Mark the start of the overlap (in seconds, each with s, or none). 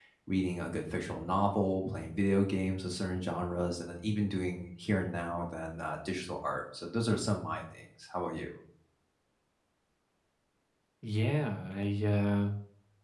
none